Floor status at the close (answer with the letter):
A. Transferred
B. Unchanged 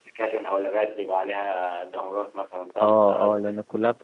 A